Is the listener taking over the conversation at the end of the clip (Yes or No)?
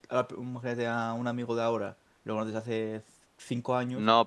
Yes